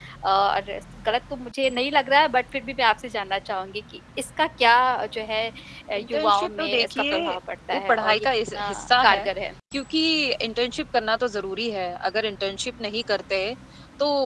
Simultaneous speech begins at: 6 s

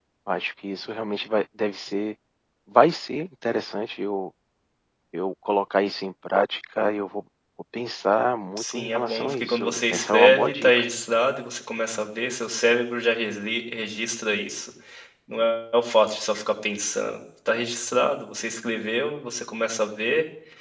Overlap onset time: 9 s

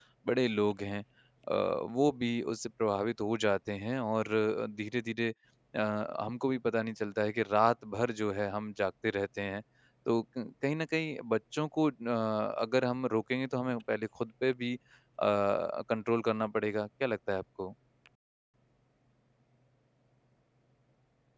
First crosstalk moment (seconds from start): none

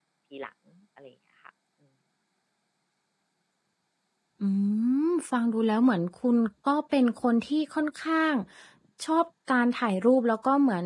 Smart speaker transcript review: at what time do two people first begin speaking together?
none

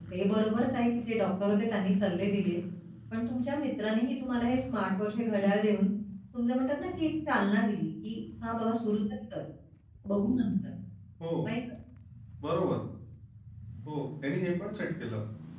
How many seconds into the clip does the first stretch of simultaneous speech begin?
none

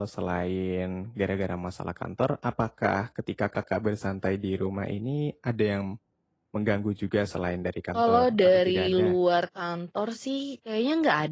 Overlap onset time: 8 s

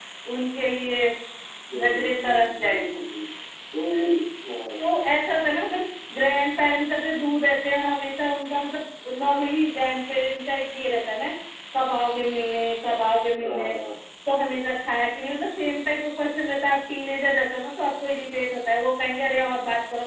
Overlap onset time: 2 s

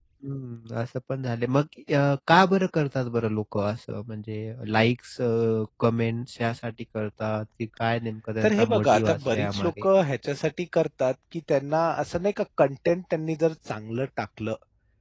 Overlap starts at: 8 s

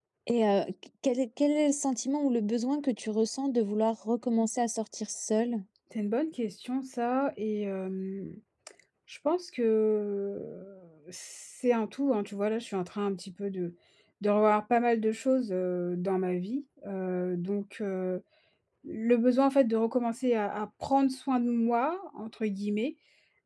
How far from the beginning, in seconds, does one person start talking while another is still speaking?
none

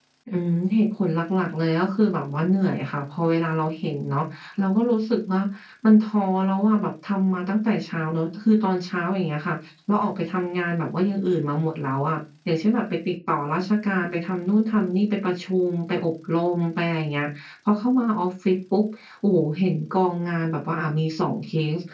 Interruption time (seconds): none

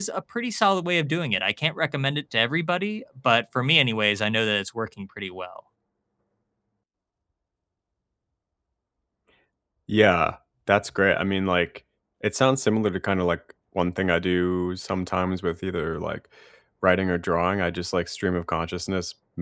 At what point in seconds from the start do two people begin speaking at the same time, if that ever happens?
none

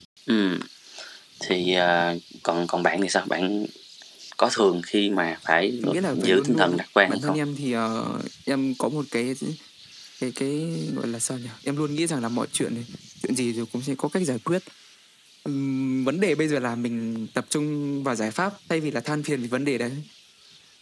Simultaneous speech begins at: 6 s

